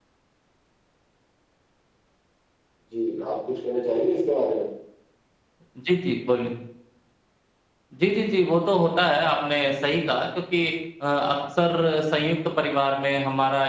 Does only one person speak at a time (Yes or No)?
Yes